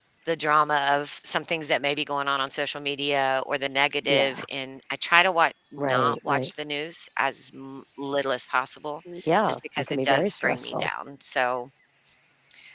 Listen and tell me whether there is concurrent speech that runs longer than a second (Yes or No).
Yes